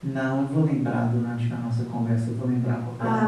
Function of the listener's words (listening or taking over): taking over